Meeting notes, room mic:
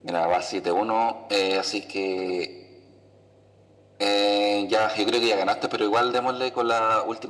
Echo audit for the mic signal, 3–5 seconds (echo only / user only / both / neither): echo only